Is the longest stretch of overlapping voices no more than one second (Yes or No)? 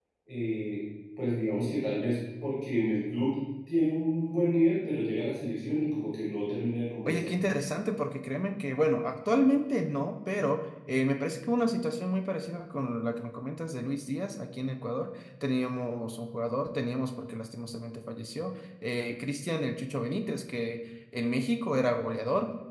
Yes